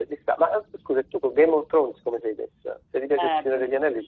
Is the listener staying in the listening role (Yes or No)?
No